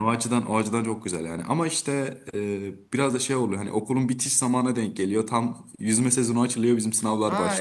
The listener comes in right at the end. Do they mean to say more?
Yes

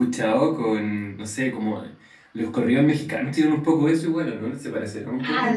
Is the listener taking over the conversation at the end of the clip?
Yes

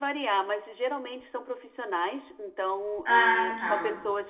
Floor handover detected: No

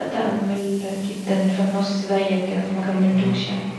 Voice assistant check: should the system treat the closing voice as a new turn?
Yes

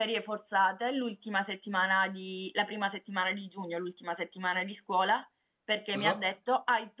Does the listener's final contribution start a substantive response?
No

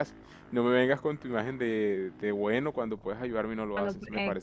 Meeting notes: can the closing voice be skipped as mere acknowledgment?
No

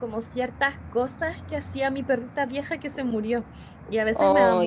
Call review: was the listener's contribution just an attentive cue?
Yes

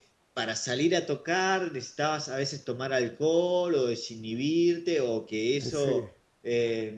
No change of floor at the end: Yes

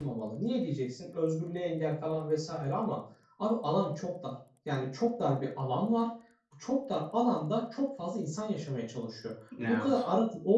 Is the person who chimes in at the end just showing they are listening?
Yes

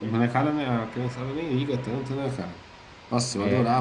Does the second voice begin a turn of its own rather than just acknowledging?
No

